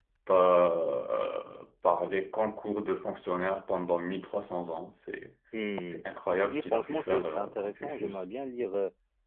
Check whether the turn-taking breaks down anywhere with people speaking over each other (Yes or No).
Yes